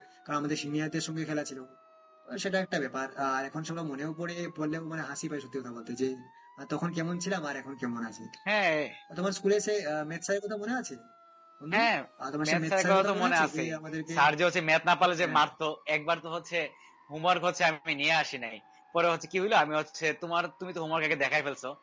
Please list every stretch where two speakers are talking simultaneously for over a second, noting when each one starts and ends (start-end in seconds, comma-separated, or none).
12.5-13.7